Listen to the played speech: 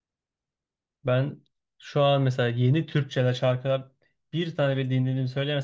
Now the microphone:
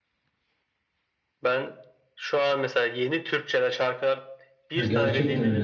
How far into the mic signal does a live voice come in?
4.7 s

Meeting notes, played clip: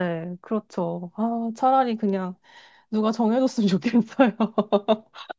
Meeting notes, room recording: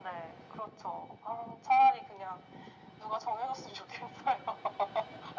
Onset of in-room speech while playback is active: none

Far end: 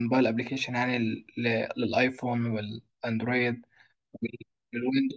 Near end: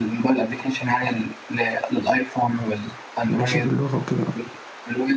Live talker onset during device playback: 3.3 s

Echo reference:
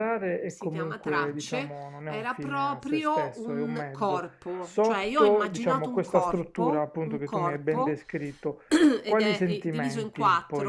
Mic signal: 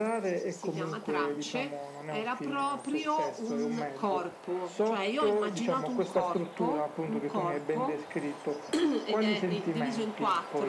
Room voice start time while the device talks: none

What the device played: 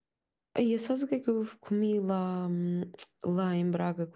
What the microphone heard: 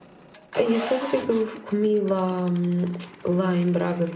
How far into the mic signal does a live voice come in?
none

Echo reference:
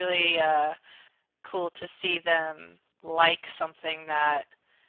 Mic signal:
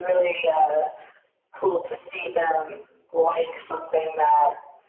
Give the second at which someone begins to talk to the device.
none

